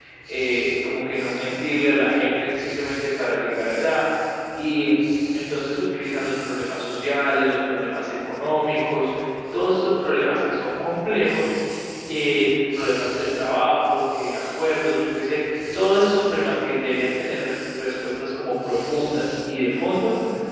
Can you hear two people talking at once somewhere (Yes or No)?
No